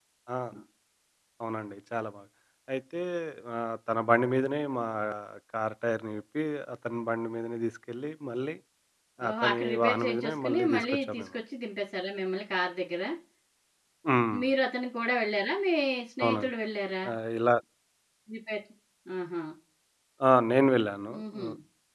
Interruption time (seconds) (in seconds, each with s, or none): 9.3 s